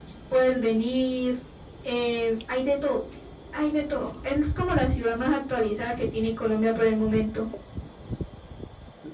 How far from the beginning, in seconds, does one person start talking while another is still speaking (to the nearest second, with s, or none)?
none